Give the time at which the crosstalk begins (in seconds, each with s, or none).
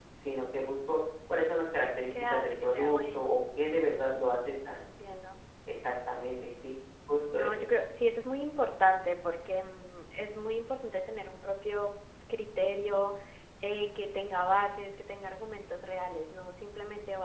2.1 s